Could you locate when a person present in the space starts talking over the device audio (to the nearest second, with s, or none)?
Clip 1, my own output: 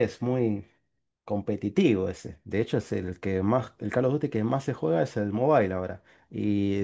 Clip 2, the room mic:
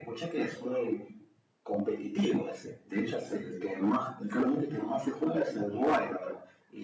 none